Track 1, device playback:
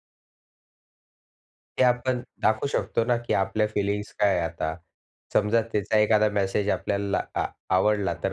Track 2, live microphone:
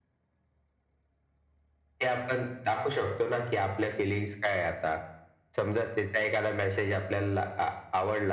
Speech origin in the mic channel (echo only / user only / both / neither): echo only